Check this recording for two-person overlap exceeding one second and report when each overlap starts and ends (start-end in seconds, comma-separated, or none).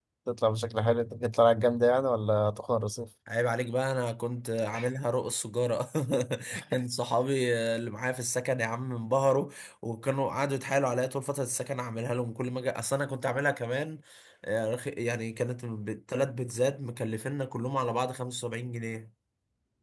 none